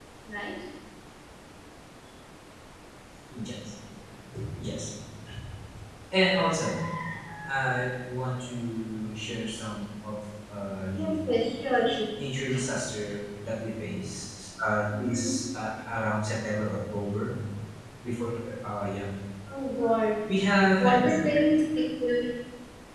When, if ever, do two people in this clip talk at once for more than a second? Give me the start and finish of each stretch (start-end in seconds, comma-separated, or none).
none